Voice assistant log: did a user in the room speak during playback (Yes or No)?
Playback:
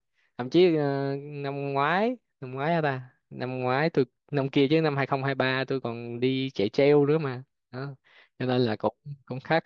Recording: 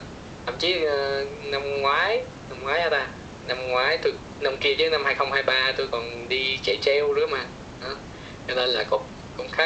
No